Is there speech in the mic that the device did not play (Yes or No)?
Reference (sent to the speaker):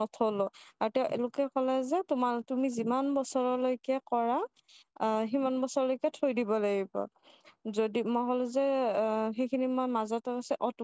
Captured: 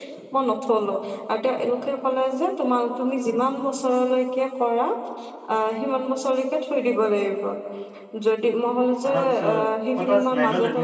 Yes